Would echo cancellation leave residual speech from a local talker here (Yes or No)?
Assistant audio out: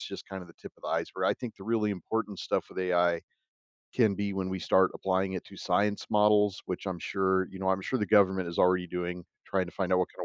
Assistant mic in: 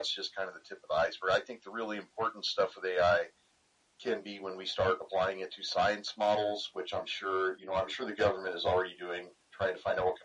No